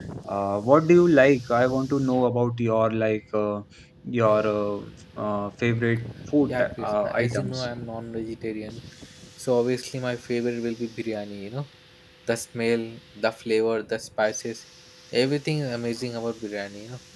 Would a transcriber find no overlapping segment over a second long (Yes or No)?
No